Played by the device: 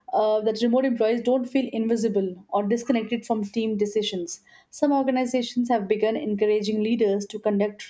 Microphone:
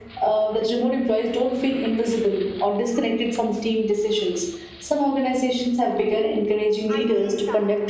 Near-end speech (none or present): present